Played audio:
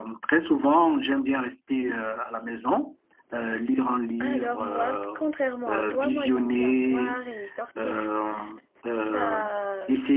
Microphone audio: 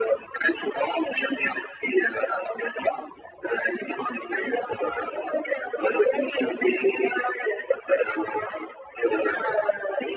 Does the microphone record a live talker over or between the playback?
No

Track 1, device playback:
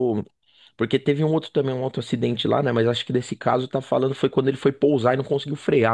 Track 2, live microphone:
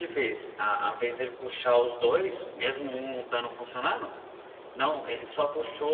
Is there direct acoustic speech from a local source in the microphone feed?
Yes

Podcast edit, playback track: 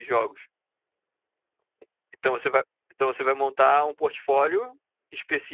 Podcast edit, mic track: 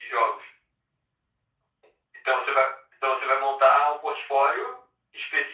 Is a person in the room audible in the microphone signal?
No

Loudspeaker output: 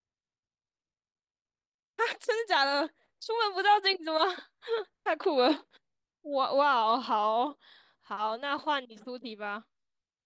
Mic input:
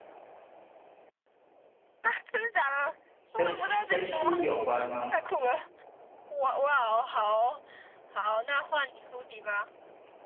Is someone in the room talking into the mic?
Yes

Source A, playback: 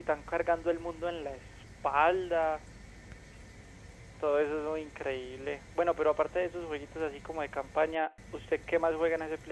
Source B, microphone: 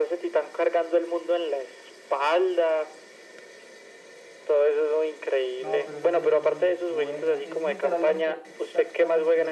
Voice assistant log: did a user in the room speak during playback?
Yes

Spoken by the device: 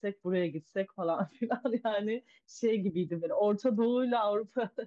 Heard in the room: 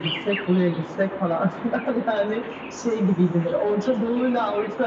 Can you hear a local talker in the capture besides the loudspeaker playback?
No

